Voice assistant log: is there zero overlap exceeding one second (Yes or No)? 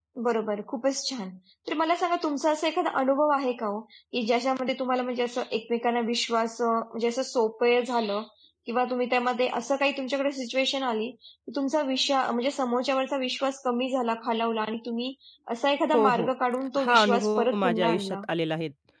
No